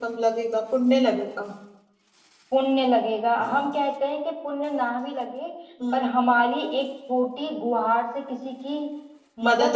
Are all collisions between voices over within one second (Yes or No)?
Yes